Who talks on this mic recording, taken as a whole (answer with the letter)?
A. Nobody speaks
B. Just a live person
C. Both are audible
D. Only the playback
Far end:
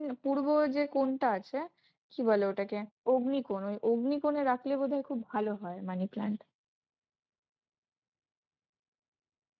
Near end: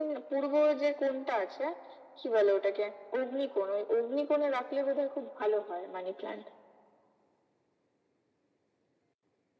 D